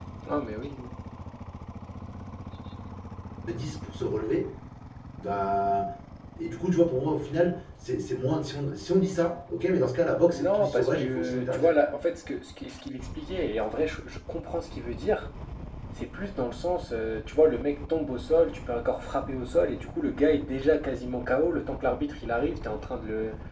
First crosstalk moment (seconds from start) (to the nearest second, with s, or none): 10 s